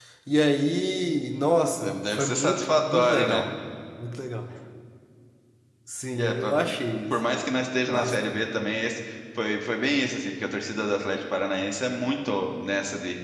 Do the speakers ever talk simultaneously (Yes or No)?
Yes